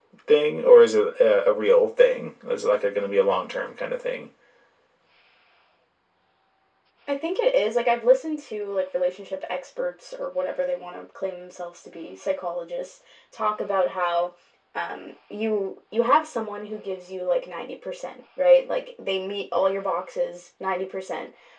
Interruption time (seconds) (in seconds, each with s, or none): none